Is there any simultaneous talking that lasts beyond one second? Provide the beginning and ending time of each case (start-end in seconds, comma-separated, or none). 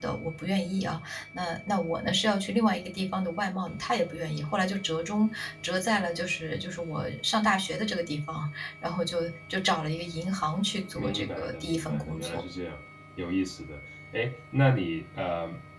11.0-12.4